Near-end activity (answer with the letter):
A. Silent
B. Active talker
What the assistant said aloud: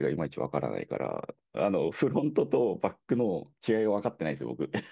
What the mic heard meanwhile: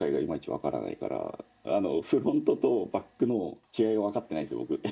A